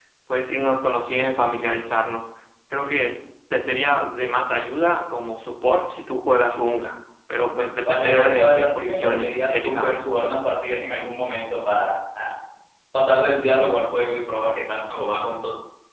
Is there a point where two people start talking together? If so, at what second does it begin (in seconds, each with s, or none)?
7.9 s